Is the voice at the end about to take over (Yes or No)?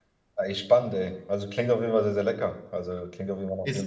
Yes